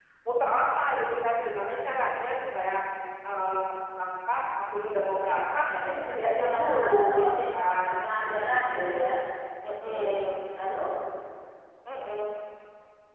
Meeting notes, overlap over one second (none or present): present